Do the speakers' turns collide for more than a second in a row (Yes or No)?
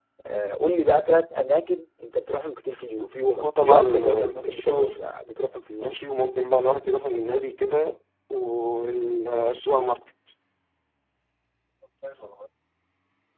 Yes